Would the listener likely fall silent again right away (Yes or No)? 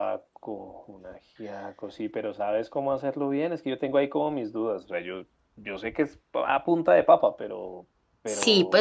No